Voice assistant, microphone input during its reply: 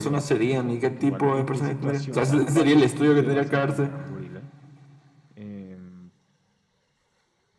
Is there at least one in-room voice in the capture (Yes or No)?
Yes